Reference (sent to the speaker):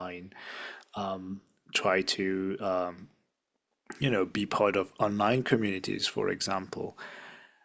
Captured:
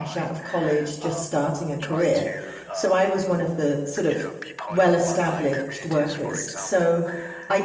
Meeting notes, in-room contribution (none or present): present